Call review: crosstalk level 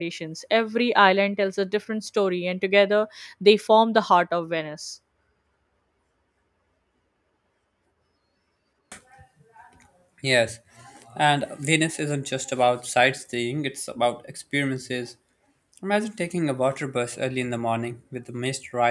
none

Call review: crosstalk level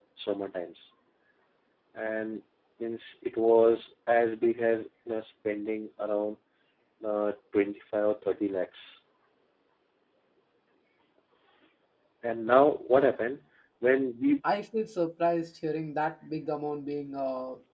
none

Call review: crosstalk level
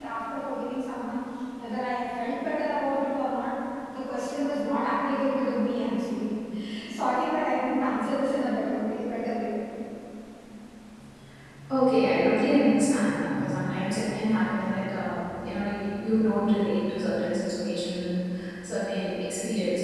none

